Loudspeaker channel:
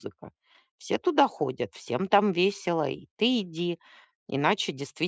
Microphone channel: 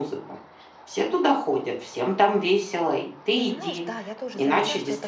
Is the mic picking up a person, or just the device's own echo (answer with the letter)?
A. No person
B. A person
B